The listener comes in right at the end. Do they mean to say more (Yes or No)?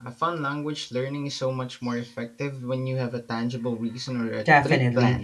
Yes